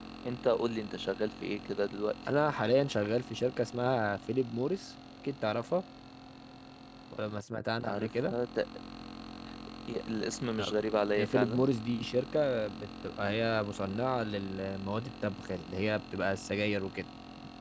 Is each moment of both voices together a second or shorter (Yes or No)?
Yes